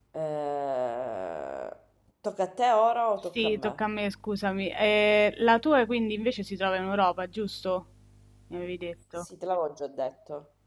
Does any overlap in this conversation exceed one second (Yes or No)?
No